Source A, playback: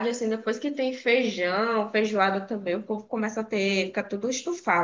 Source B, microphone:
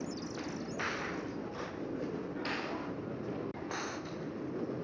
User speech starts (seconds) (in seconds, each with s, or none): none